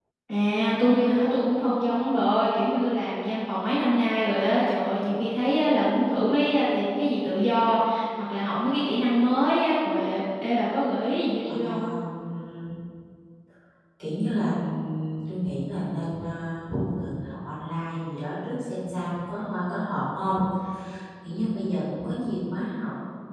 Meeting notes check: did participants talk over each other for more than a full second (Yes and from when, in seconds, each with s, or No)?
No